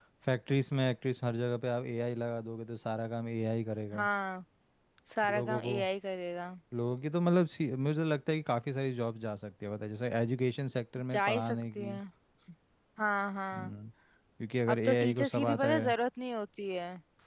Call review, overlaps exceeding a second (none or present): present